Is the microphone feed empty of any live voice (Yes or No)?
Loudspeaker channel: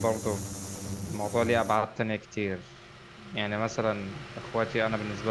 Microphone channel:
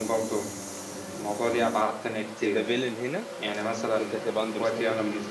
No